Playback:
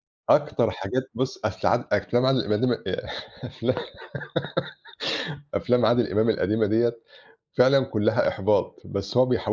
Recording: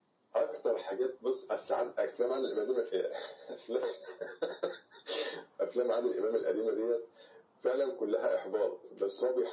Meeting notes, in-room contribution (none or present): none